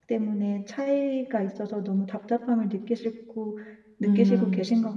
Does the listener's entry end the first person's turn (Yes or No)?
Yes